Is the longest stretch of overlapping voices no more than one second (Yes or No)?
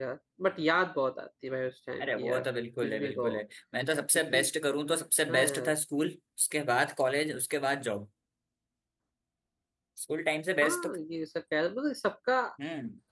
Yes